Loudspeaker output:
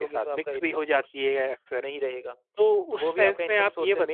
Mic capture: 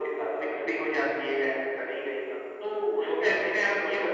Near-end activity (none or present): none